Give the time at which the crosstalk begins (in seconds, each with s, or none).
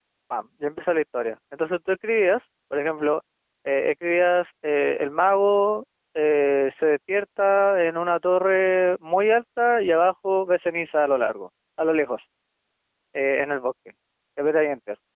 none